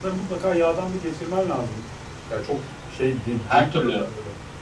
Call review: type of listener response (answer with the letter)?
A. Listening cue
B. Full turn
A